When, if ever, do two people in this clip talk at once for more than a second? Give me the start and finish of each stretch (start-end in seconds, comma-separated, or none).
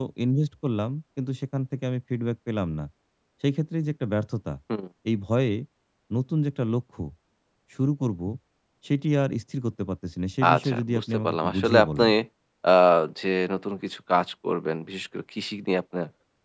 10.5-12.0